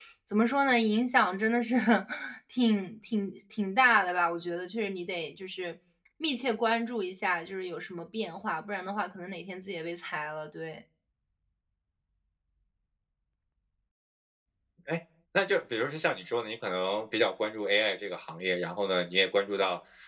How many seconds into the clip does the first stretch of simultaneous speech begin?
none

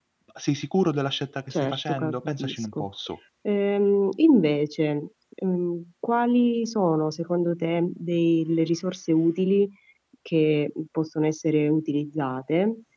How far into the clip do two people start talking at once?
1.5 s

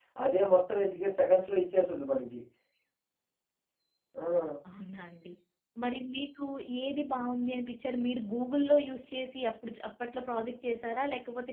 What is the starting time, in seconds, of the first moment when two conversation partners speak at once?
none

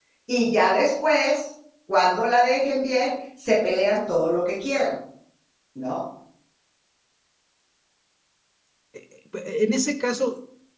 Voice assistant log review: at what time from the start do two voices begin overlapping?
none

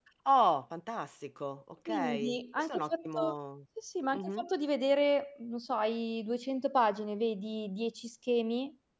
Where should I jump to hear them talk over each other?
1.9 s

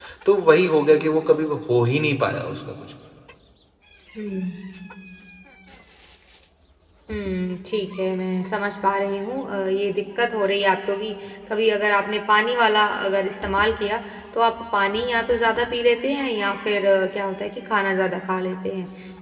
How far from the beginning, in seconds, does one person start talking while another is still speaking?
none

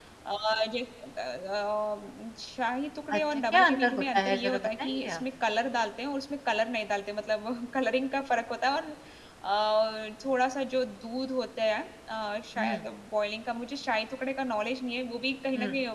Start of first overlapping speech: 3.1 s

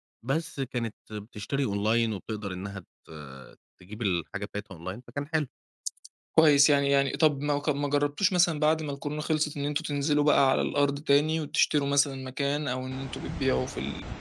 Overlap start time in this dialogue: none

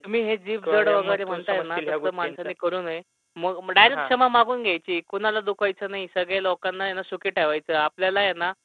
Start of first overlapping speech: 0.6 s

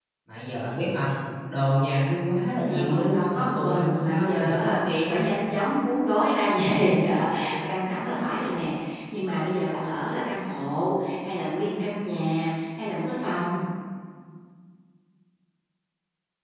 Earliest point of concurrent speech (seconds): 2.6 s

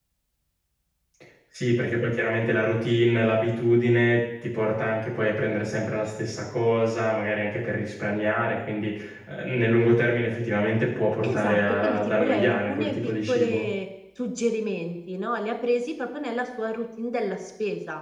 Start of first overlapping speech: 11.2 s

